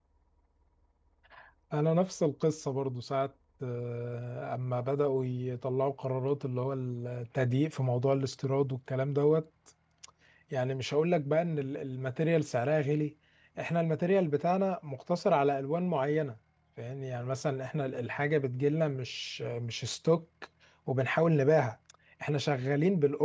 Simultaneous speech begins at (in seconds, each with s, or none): none